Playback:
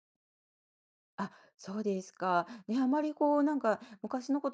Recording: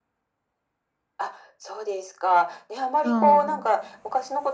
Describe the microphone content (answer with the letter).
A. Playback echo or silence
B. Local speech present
B